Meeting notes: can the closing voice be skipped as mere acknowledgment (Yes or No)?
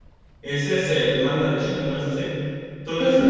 No